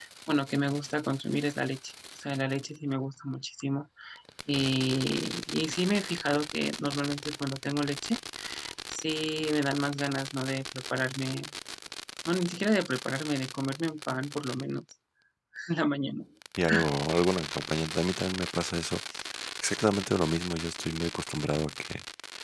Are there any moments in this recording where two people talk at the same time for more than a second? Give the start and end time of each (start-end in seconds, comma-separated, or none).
none